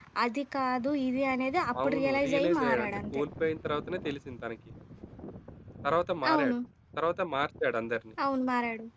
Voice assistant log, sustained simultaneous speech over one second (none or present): present